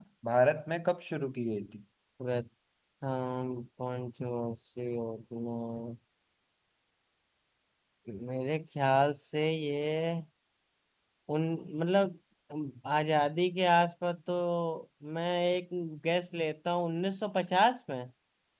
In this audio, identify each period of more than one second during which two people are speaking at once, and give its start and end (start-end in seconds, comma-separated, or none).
none